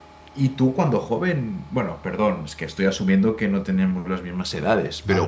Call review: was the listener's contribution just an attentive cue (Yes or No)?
Yes